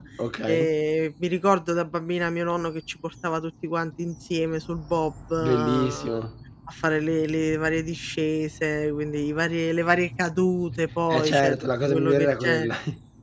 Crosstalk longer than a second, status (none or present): present